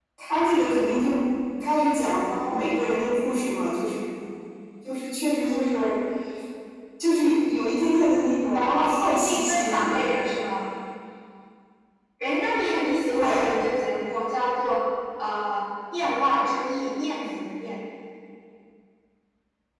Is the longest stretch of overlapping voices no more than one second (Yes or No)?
No